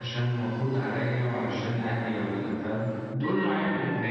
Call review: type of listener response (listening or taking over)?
listening